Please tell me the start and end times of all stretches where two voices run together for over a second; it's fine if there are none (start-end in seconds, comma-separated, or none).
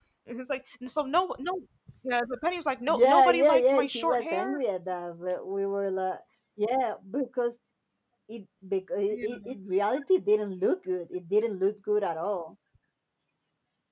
2.9-4.6